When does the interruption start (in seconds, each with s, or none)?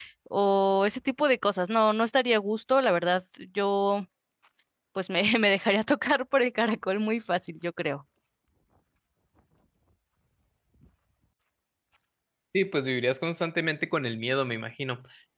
none